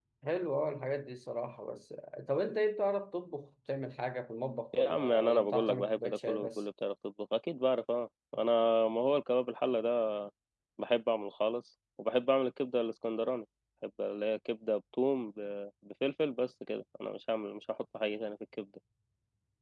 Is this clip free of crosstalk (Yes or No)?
No